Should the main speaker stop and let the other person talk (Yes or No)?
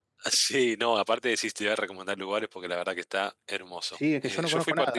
Yes